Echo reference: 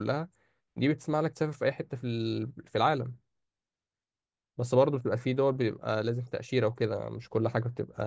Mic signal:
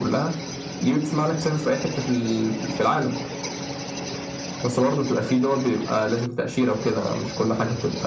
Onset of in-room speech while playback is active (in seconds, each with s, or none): none